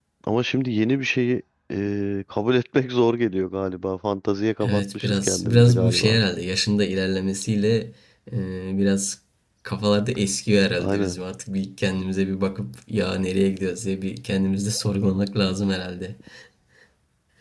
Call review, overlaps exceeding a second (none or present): present